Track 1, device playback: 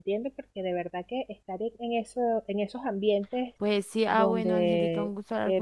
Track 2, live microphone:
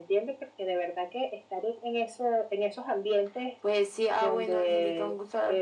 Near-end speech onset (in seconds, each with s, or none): none